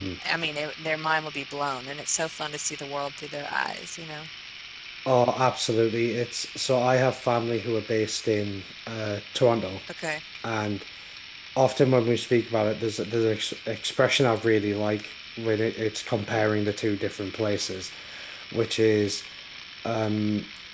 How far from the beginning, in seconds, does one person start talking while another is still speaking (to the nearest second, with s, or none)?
none